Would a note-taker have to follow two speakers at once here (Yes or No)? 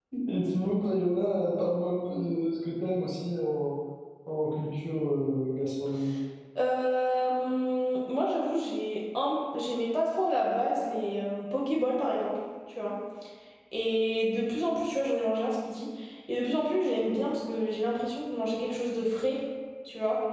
No